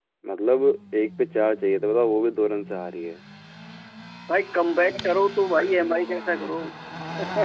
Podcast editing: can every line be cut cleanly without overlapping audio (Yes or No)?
Yes